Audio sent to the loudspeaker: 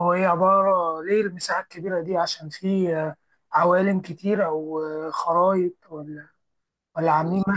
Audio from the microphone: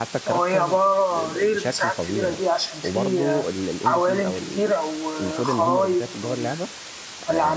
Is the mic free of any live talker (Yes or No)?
No